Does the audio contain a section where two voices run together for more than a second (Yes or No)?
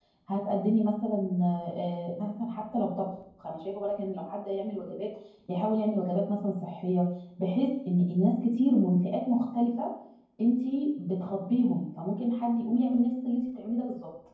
No